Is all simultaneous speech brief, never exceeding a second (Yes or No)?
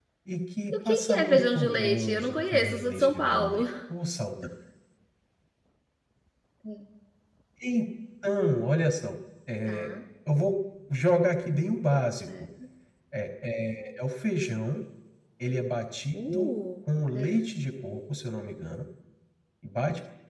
No